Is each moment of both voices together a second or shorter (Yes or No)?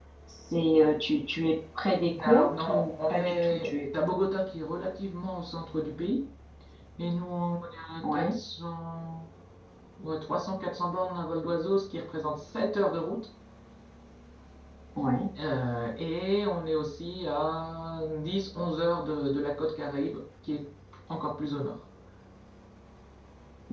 No